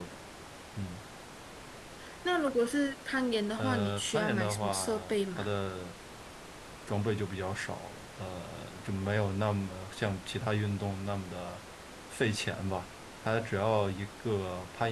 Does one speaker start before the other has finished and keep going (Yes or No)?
Yes